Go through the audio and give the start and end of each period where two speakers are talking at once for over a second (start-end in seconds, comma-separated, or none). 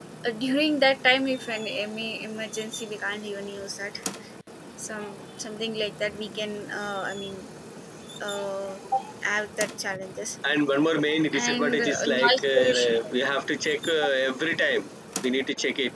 11.3-13.1